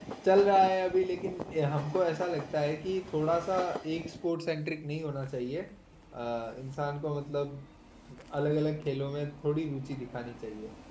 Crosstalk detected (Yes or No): No